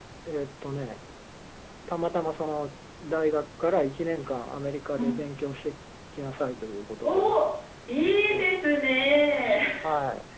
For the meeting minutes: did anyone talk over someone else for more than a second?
No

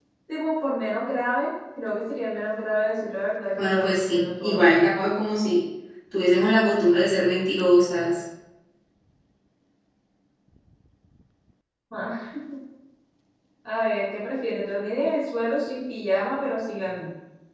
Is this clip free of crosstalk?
No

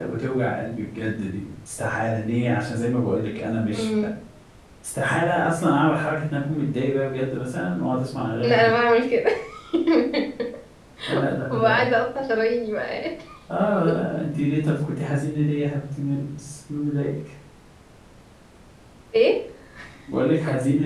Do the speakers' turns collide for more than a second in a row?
No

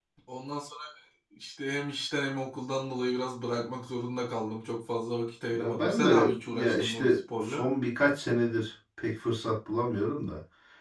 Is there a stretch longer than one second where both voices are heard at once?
Yes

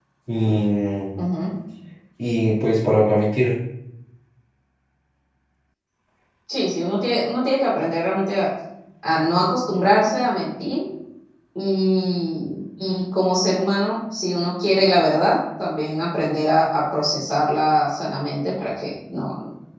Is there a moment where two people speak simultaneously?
No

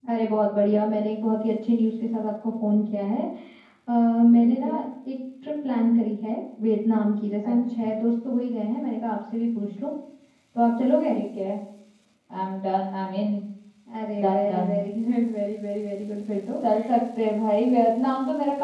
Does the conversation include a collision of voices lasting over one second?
No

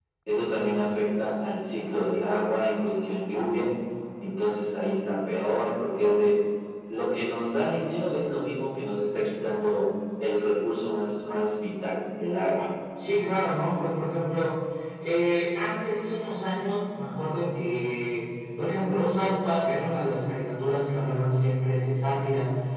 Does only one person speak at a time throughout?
Yes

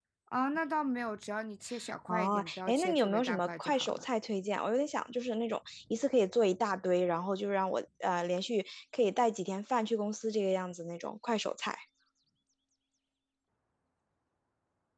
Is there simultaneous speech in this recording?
Yes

